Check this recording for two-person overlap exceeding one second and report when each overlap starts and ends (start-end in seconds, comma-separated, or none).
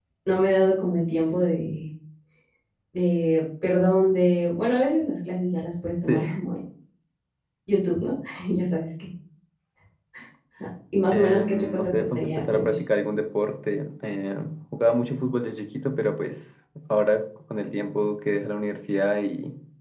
11.1-12.7